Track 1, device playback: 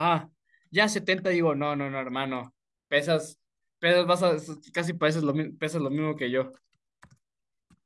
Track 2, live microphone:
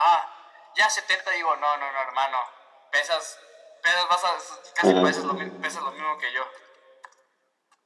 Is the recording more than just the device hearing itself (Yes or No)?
Yes